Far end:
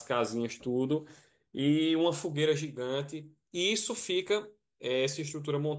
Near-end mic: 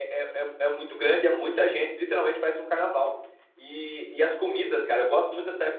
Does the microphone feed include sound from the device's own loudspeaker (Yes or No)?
No